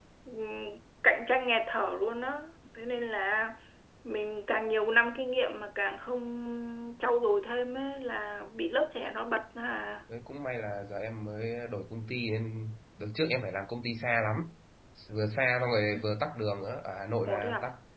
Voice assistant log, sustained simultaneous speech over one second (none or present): none